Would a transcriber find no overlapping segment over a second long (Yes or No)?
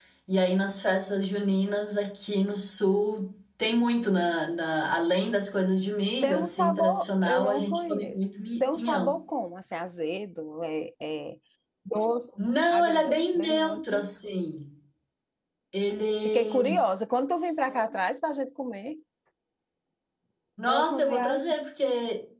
No